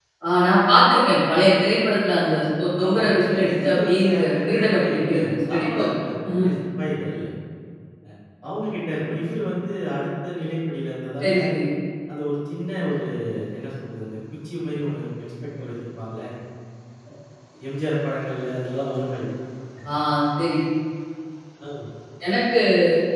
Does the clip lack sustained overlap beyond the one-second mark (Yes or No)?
No